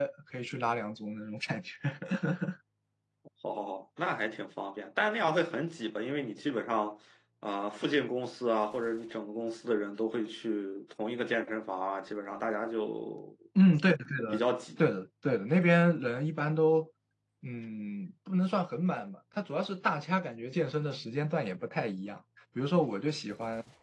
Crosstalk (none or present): none